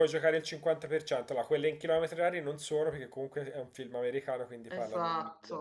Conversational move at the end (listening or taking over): listening